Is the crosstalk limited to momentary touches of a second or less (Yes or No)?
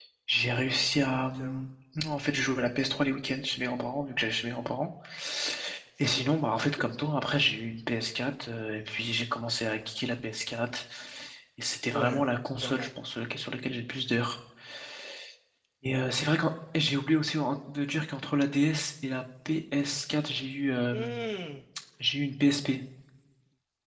Yes